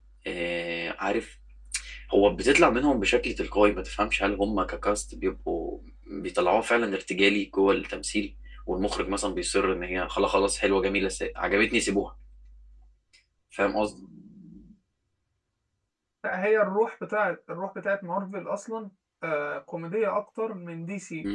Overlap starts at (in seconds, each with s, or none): none